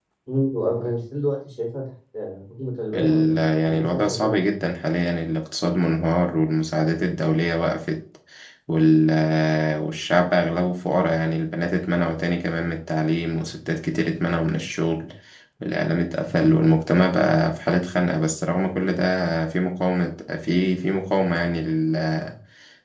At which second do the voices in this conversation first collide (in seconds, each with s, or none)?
2.9 s